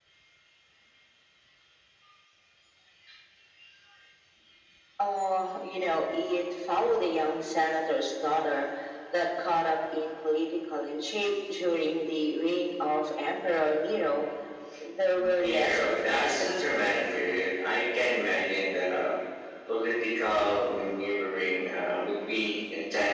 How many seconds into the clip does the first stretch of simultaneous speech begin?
15.2 s

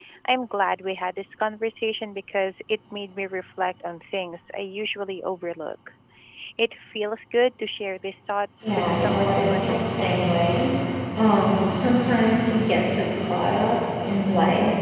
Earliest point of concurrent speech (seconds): 8.6 s

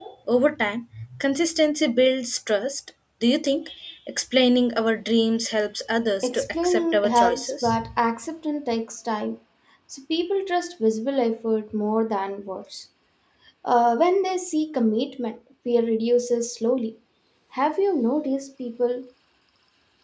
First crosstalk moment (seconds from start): 6.2 s

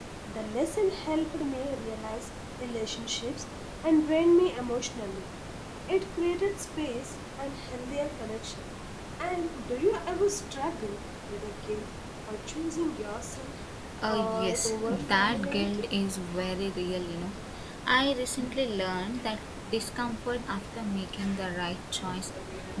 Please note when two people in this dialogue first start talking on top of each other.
14.1 s

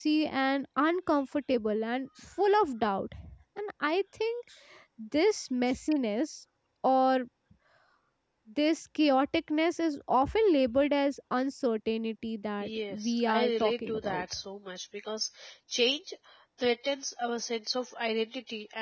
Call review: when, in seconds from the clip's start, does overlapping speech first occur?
12.6 s

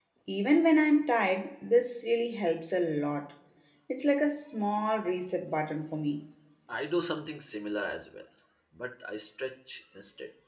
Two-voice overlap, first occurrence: none

